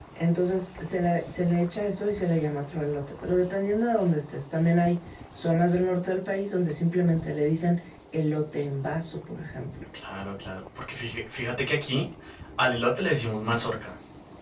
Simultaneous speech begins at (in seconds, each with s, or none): none